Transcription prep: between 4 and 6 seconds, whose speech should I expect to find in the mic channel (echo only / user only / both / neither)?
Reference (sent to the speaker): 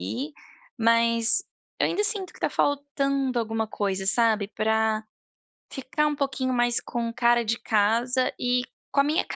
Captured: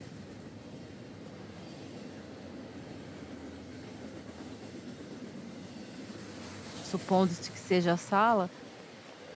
neither